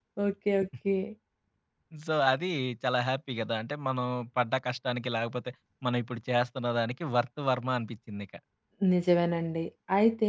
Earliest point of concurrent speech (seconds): none

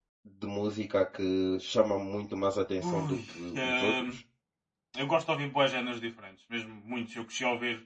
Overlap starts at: 2.8 s

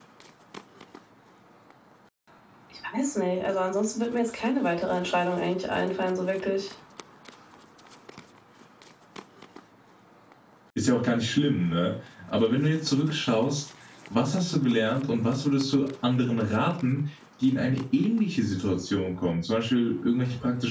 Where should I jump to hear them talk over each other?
none

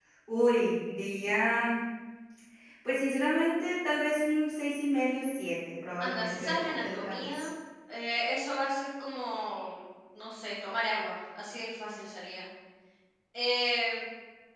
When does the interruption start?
6.0 s

